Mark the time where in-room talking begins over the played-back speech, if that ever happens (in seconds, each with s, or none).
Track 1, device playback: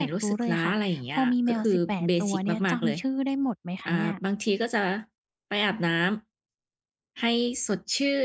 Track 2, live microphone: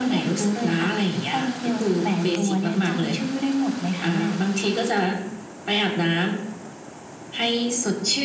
none